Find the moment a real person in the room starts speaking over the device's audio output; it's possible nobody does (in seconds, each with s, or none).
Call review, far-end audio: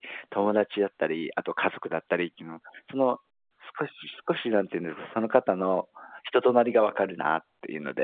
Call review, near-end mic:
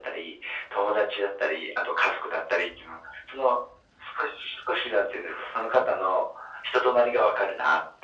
none